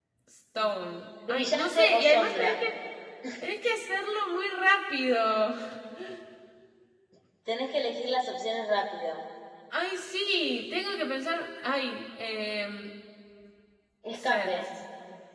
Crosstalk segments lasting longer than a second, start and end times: 1.3-2.5

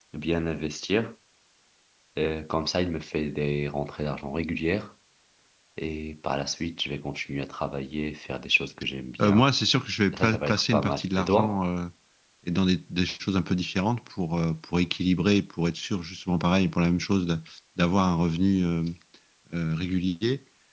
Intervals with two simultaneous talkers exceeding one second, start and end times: 10.1-11.6

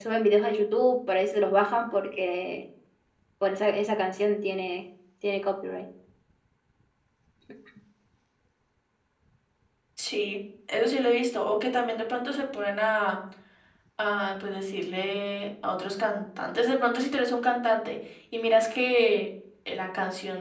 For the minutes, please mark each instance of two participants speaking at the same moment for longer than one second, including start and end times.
none

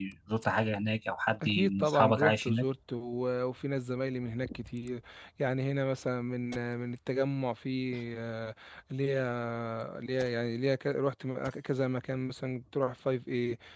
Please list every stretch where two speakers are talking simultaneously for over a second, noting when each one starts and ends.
1.4-2.6

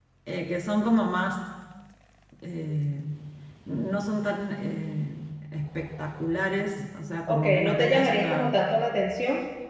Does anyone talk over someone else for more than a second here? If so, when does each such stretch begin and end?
7.3-8.6

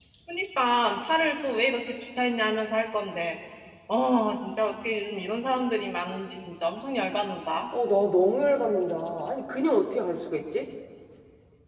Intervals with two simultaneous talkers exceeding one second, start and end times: none

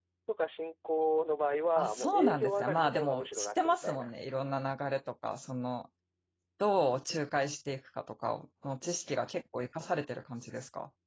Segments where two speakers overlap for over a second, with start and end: 1.8-4.1

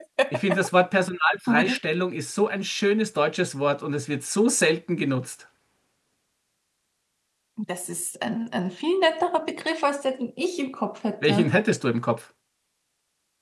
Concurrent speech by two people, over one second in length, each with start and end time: none

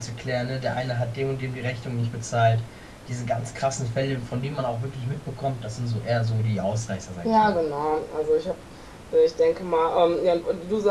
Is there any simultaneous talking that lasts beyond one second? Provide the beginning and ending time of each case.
none

